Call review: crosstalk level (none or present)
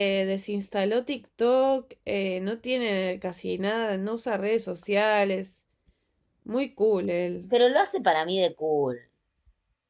none